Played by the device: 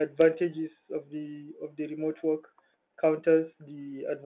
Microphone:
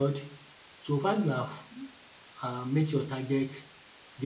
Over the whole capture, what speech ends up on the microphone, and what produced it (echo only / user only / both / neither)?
user only